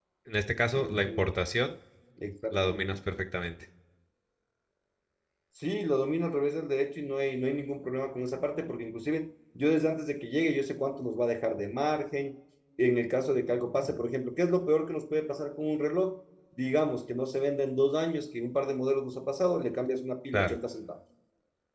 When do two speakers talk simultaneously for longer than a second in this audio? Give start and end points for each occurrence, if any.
none

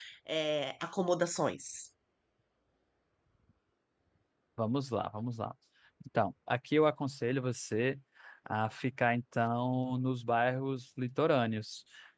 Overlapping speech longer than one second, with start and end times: none

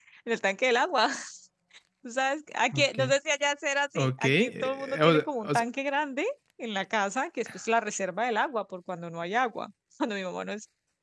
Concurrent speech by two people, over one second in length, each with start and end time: 4.0-5.6

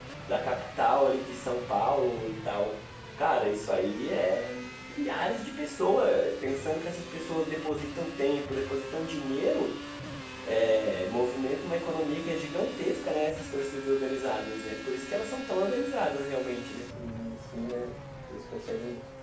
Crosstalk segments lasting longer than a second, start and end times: none

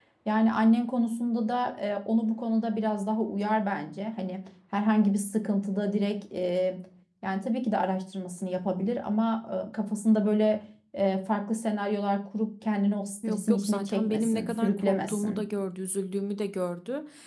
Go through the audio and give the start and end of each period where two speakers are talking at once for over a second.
13.3-15.4

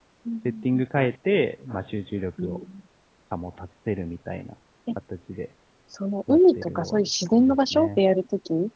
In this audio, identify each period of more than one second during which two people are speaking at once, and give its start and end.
6.3-8.0

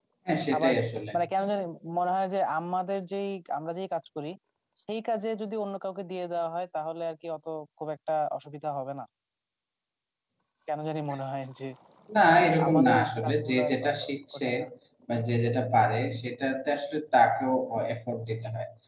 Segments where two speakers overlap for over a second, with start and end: 12.3-14.5

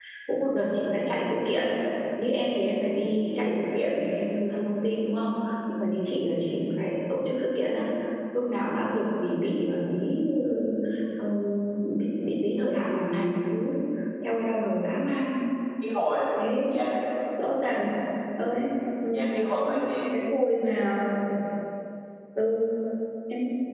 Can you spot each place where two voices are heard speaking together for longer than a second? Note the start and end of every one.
none

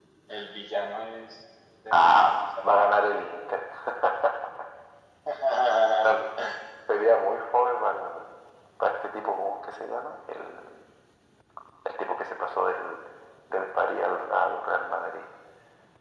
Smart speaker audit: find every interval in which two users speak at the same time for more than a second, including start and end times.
1.9-3.3

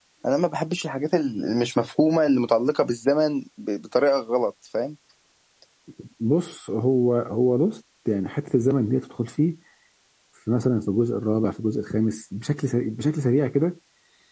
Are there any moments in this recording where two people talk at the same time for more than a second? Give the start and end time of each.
none

